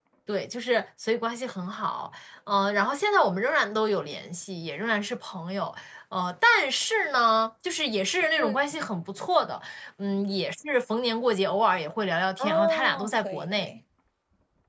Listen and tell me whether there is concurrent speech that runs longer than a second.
Yes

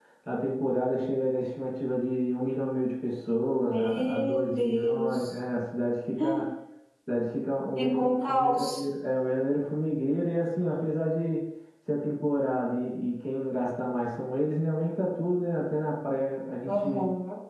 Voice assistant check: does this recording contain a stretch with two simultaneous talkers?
Yes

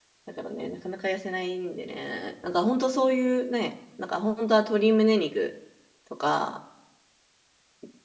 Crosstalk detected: No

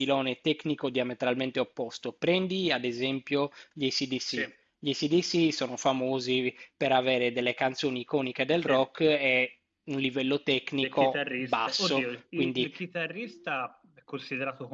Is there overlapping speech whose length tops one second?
Yes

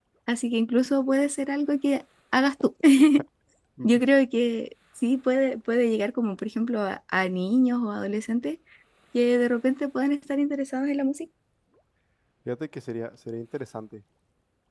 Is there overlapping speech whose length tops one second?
No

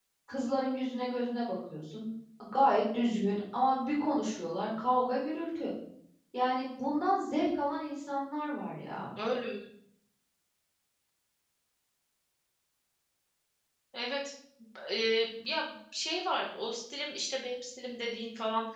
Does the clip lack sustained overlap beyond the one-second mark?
Yes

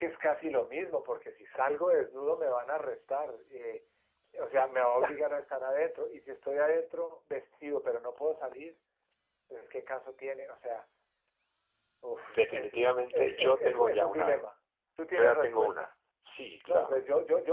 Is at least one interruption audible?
Yes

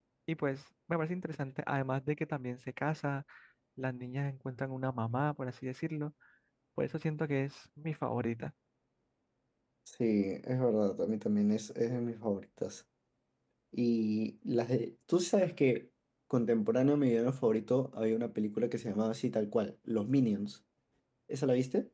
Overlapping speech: No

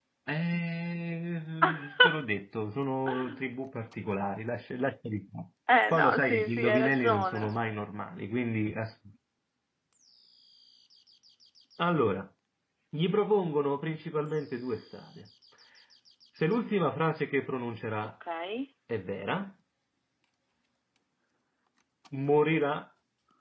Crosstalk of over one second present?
Yes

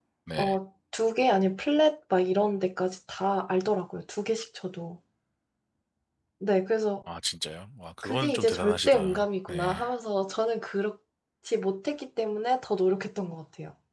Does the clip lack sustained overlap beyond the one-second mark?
No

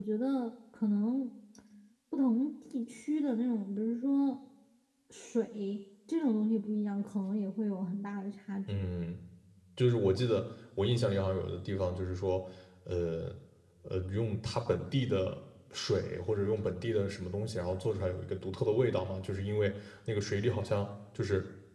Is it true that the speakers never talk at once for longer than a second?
Yes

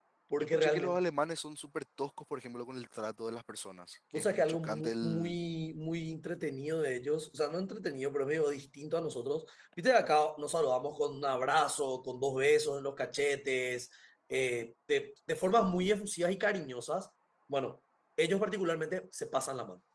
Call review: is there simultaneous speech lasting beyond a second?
Yes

